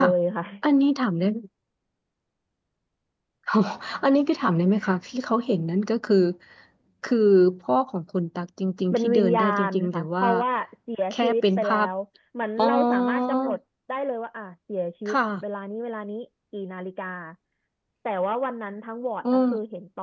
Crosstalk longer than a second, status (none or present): present